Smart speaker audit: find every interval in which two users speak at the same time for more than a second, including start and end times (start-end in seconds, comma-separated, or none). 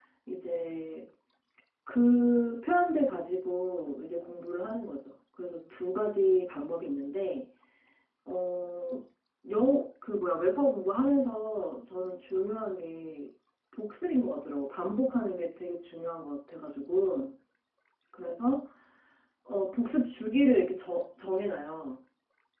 none